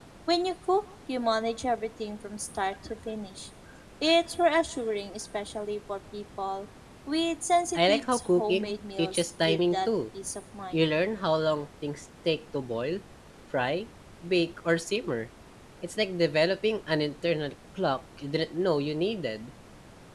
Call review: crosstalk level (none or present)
present